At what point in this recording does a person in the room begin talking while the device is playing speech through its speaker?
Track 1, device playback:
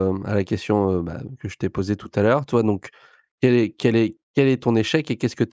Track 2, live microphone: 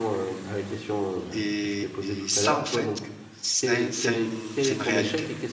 1.3 s

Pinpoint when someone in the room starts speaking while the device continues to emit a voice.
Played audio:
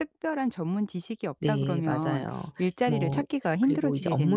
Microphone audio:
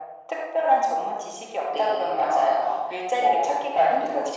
none

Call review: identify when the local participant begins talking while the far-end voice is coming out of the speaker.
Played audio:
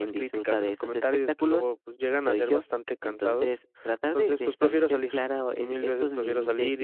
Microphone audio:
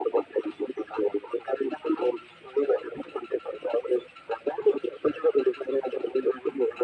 none

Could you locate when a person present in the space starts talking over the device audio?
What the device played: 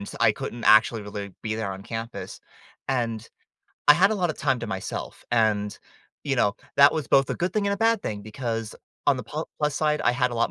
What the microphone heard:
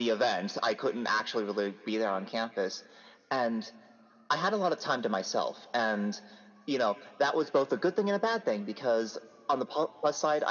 none

